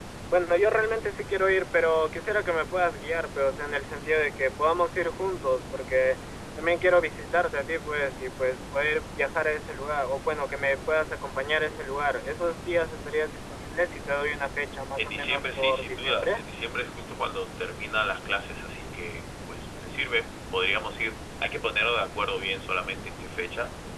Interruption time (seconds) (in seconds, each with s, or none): 15.0 s